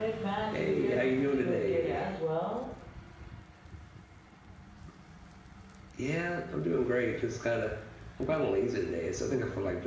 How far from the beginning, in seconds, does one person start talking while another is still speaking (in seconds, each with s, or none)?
0.6 s